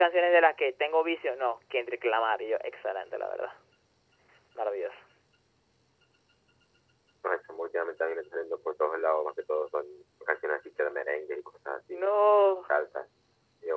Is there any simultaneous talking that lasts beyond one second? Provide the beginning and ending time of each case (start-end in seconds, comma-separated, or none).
none